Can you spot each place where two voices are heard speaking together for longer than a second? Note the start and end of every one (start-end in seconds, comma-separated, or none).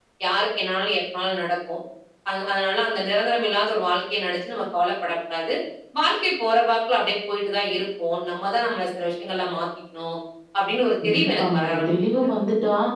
11.0-12.3